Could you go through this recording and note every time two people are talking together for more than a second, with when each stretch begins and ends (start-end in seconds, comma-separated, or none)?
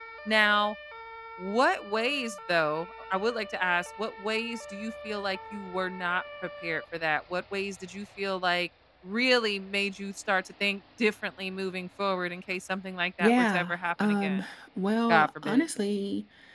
13.2-14.4